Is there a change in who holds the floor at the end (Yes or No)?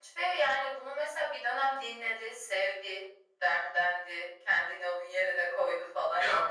Yes